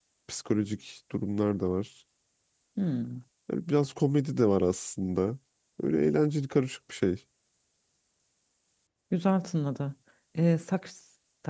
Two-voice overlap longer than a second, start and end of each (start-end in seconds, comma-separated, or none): none